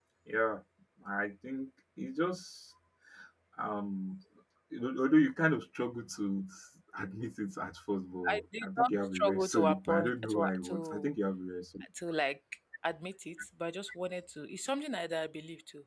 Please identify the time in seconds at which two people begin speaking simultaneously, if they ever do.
8 s

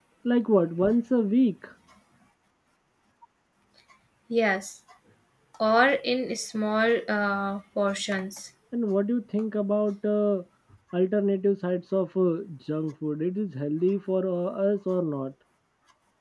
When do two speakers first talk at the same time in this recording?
none

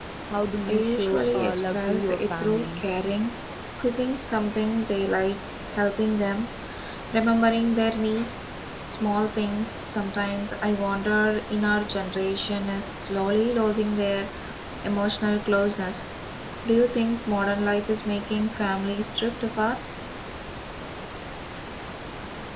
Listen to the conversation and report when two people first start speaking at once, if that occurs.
1 s

